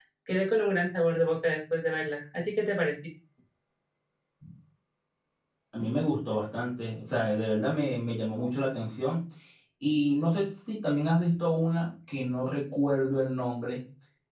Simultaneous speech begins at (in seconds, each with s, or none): none